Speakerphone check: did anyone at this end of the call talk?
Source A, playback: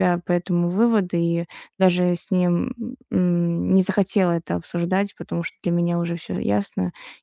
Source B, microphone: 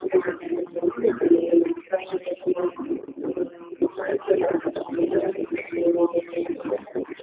No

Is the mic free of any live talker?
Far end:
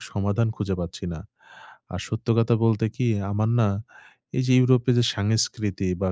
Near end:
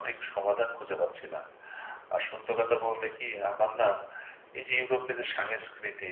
Yes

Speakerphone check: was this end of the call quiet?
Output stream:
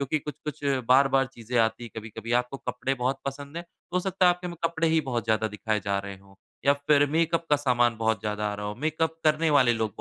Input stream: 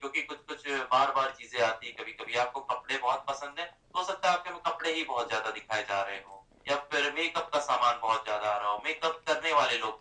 Yes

